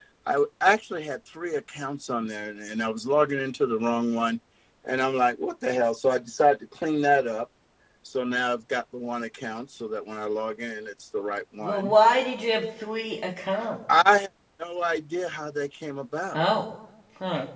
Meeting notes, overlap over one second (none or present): none